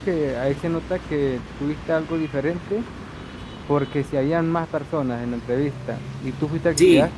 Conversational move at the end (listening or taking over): listening